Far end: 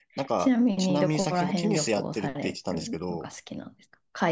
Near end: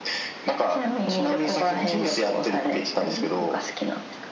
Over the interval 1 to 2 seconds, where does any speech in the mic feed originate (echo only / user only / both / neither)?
echo only